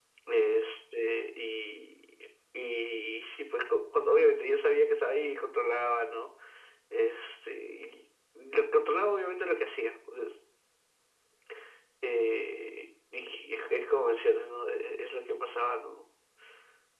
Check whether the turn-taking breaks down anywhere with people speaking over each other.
No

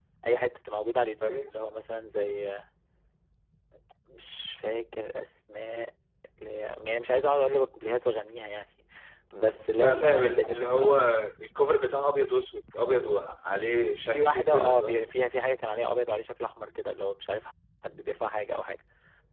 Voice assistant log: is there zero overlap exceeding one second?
No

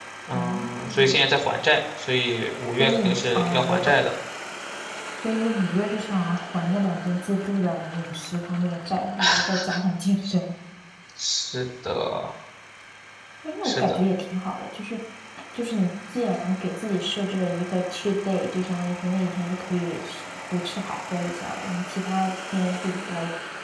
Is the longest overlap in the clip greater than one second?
Yes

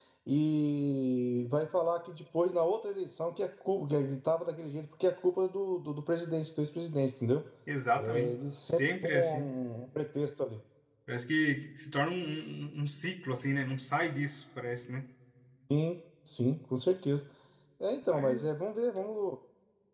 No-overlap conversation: No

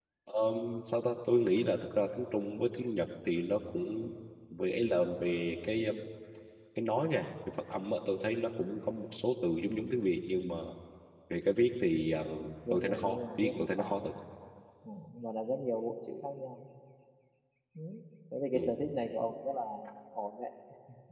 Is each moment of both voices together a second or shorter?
No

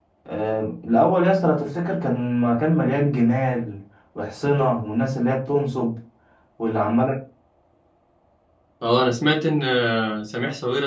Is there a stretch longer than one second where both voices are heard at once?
No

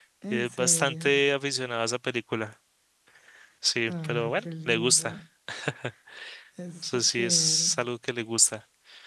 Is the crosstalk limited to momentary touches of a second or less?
No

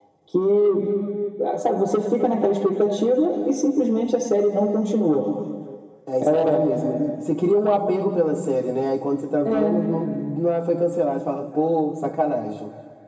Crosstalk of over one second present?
No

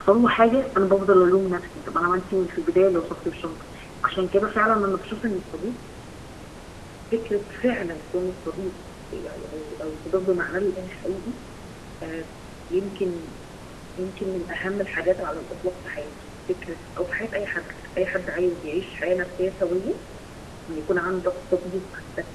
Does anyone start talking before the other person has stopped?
No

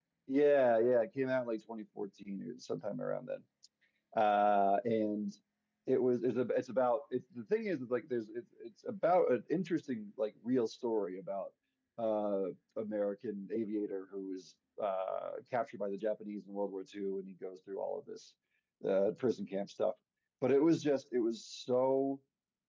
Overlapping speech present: No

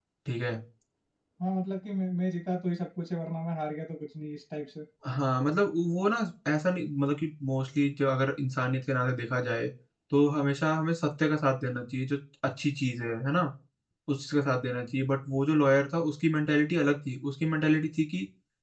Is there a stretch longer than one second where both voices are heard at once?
No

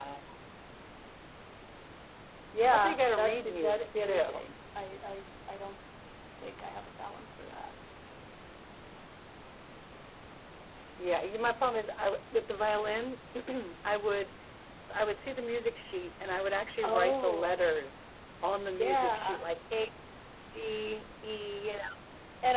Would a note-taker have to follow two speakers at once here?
Yes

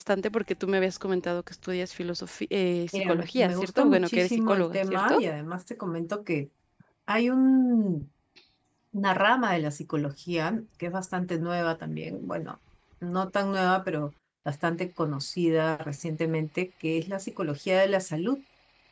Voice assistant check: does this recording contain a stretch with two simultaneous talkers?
Yes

